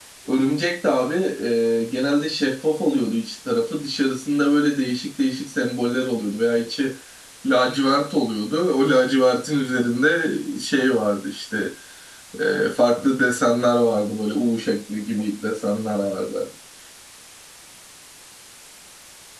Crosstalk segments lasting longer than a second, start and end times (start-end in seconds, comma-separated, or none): none